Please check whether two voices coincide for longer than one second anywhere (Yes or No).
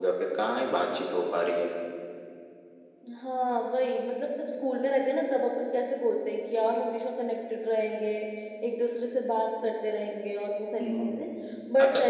No